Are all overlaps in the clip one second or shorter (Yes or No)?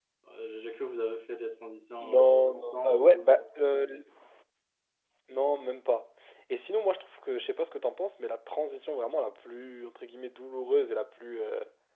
No